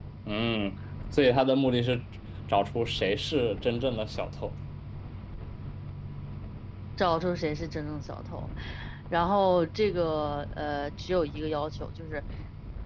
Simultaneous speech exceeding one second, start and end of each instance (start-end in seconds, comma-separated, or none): none